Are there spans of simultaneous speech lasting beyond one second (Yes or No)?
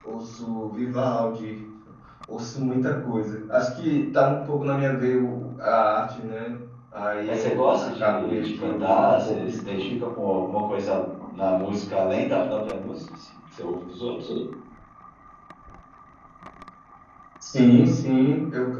Yes